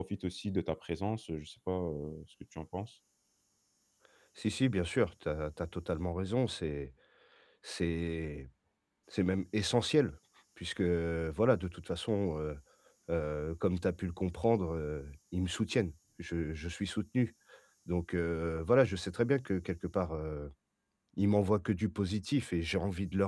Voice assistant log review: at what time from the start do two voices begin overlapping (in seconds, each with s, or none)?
none